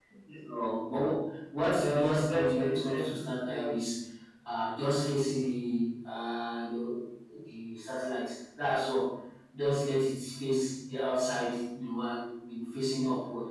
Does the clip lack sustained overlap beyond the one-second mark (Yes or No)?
No